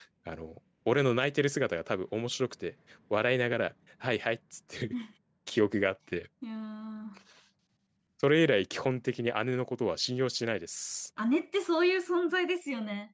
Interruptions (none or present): none